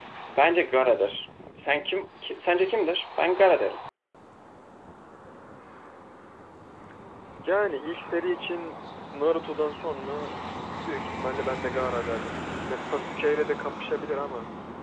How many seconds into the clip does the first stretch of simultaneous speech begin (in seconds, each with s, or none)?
none